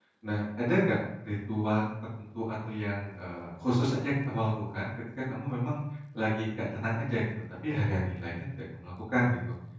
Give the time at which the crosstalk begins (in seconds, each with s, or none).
none